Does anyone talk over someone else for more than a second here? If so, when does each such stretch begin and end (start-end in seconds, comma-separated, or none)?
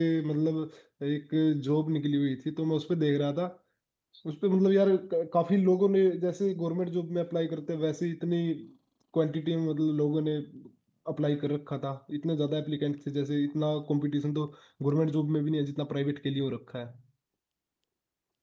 none